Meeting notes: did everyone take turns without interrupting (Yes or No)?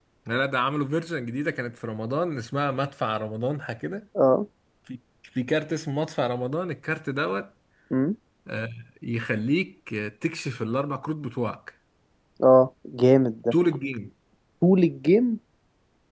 Yes